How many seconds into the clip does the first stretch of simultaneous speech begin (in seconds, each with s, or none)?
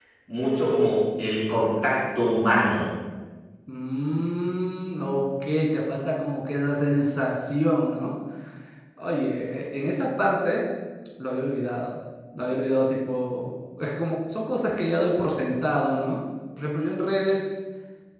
none